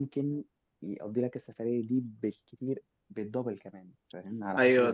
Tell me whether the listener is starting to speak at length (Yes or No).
Yes